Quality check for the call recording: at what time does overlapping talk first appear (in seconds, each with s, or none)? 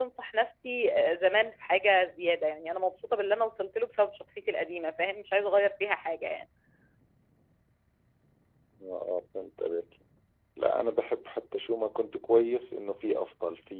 none